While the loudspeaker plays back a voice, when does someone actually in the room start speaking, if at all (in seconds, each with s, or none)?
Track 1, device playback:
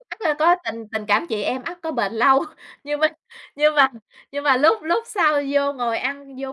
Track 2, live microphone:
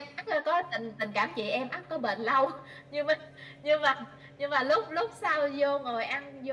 none